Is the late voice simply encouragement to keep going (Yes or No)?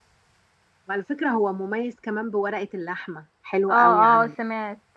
No